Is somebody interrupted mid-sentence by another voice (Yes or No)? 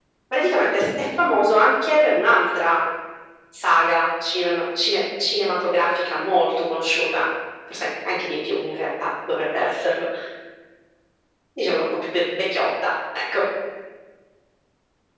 No